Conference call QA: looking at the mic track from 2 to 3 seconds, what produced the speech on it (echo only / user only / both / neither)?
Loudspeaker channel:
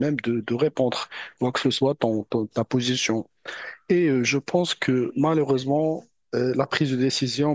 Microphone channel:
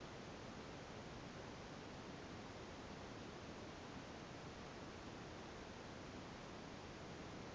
neither